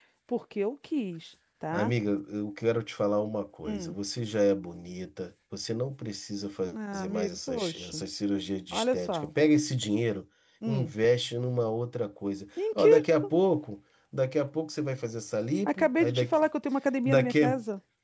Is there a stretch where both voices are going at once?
Yes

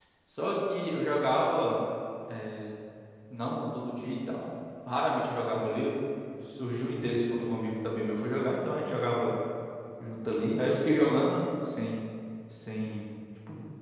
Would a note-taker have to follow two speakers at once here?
No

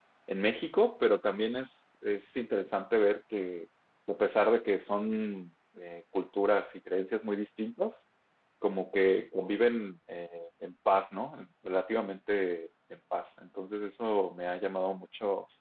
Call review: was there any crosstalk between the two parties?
No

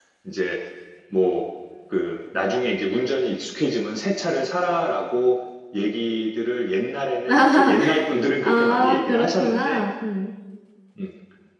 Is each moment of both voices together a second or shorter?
No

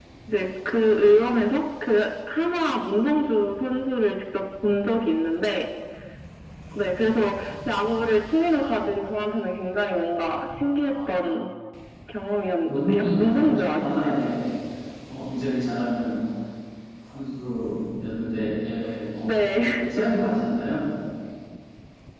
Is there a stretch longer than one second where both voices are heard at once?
Yes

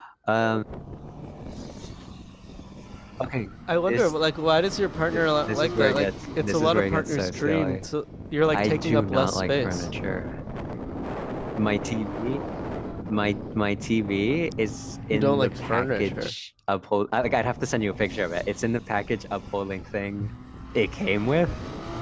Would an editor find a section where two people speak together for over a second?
Yes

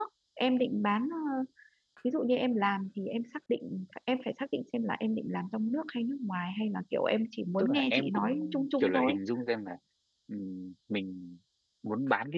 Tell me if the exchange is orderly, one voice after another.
No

